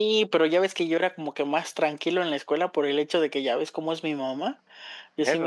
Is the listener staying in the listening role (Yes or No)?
Yes